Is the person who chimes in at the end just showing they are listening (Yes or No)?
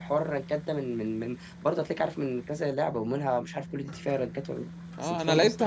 No